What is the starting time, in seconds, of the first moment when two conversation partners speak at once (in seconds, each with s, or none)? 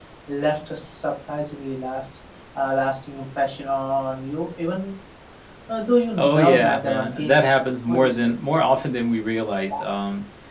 6.2 s